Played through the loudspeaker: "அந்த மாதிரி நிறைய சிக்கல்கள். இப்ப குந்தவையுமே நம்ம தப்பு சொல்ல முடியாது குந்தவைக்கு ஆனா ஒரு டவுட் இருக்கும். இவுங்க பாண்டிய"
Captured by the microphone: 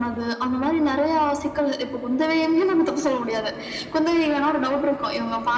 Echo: present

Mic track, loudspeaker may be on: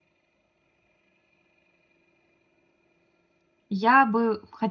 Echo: none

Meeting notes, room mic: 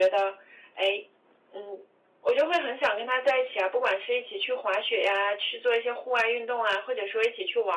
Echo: present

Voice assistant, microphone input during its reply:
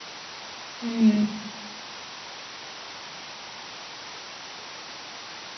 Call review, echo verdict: none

